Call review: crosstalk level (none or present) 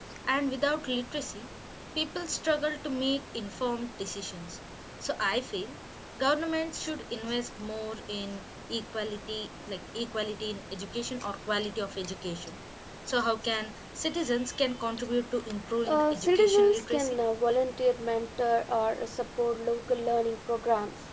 present